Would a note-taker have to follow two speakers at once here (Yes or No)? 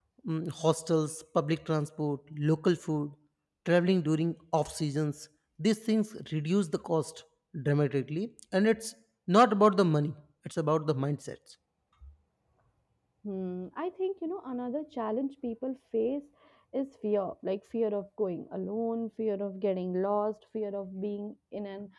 No